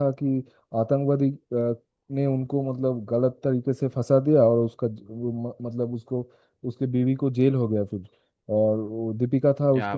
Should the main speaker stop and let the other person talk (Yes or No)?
No